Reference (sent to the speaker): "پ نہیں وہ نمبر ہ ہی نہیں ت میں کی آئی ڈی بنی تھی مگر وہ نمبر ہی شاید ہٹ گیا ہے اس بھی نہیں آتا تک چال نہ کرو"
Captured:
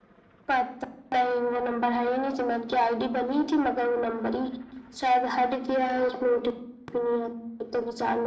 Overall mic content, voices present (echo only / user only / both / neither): echo only